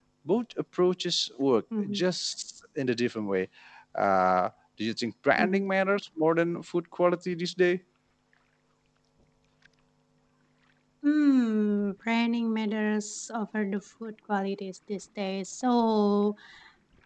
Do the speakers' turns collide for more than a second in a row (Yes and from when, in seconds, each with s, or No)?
No